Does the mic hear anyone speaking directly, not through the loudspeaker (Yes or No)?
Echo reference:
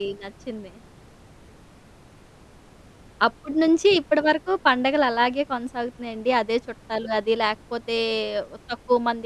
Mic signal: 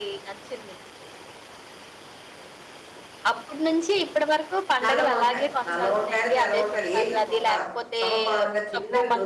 Yes